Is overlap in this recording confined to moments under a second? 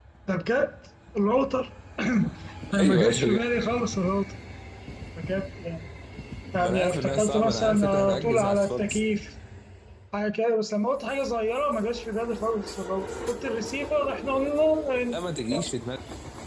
No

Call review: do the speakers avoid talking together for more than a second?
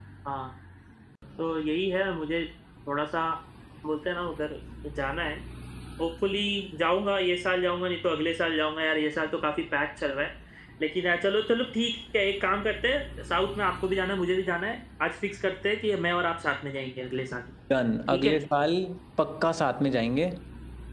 Yes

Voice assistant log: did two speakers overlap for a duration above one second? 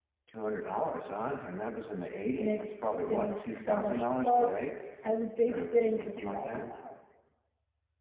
Yes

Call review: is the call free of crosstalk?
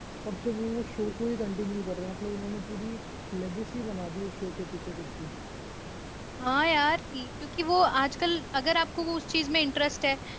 Yes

